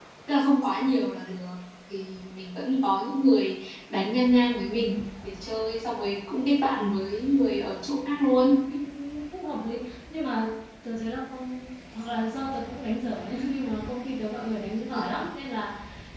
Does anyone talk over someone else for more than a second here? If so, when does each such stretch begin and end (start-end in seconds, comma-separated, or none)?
none